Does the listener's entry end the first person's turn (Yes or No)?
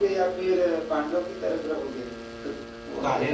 Yes